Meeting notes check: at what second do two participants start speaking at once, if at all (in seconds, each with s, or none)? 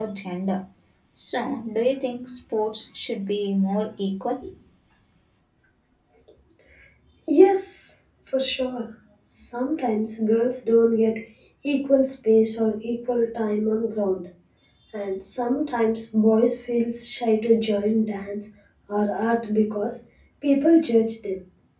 none